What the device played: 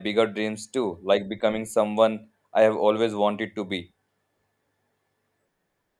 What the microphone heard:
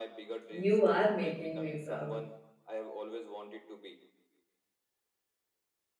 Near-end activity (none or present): present